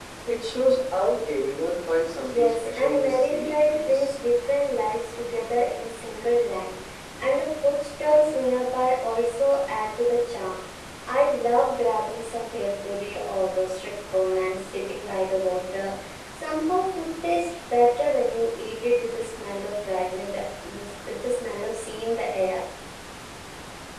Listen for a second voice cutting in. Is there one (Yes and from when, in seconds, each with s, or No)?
Yes, from 2.2 s